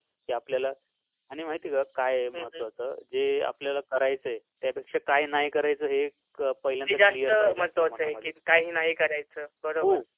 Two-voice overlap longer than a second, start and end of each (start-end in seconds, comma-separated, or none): 6.9-8.3